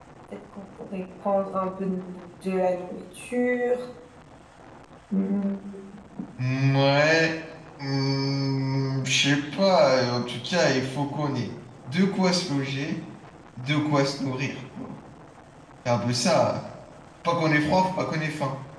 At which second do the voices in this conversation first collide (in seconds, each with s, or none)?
none